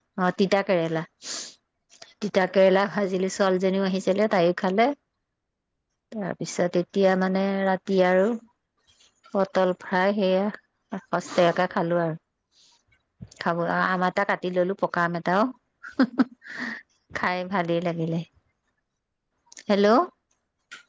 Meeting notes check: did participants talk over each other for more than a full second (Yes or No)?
No